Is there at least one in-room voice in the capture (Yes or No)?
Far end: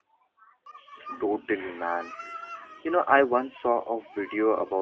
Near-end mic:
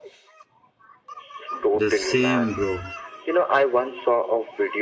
Yes